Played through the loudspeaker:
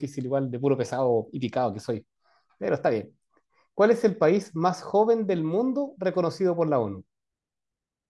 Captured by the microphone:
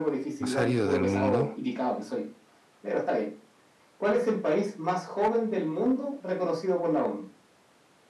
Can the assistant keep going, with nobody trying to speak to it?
No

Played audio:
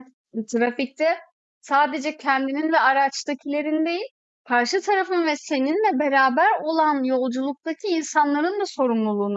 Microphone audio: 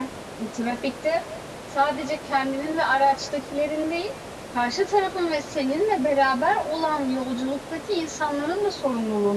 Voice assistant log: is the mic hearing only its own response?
Yes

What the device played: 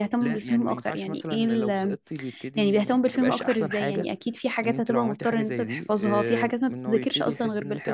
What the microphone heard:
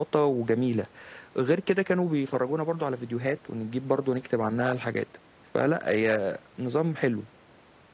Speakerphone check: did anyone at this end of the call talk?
Yes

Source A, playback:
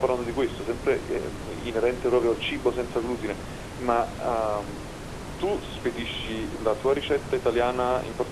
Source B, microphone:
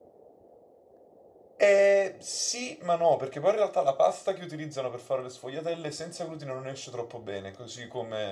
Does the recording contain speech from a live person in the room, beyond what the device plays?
Yes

